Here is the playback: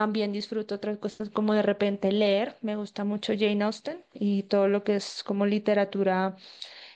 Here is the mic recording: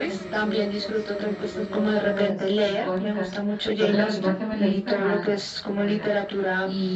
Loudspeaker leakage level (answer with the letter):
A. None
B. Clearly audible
B